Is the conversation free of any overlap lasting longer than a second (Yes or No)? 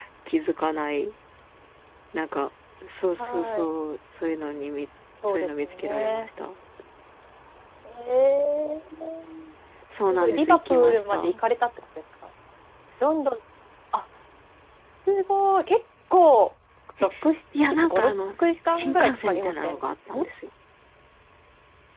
No